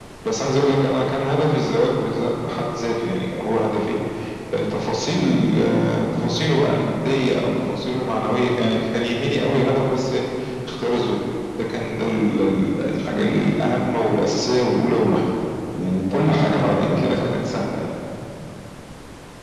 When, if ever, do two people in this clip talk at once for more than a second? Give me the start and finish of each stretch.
16.1-17.3

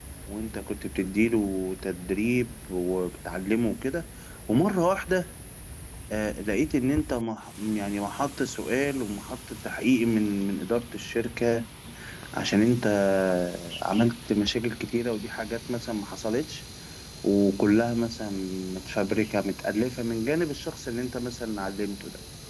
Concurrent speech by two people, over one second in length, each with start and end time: none

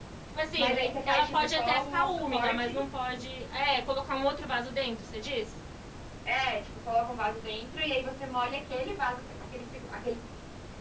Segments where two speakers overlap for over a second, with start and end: 0.6-2.7

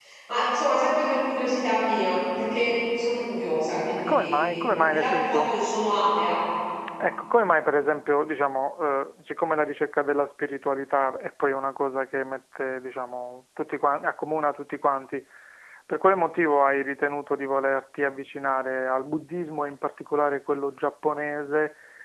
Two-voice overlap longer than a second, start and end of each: 4.0-5.5

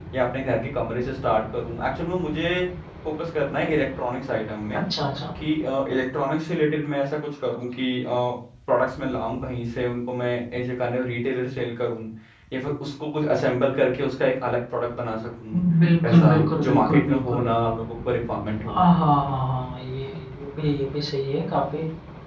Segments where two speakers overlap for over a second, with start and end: 16.1-17.5

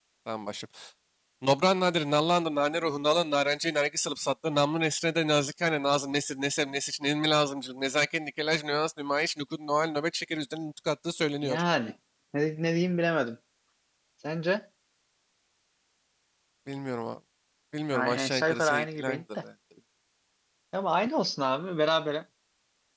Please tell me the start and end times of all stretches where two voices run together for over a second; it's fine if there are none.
17.9-19.4

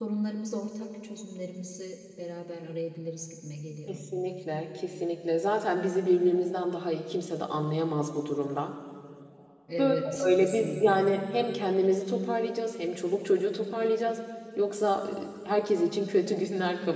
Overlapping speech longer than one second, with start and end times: 9.8-11.0

